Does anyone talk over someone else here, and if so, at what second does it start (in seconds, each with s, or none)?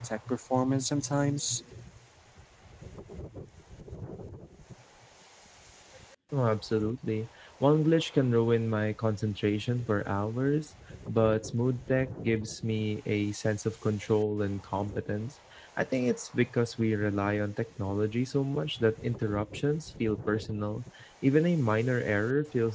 none